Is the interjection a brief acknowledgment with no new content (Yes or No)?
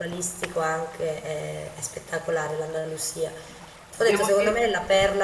Yes